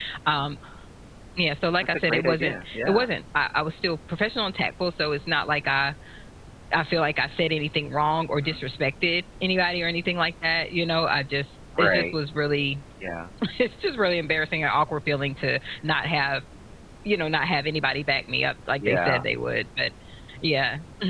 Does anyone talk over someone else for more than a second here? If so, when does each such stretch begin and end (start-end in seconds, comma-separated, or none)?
1.8-3.1